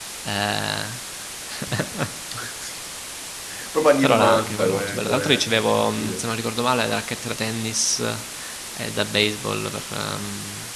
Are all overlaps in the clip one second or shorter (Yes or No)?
No